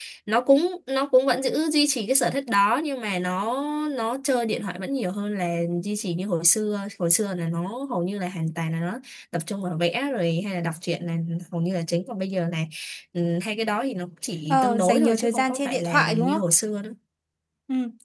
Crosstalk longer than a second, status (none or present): present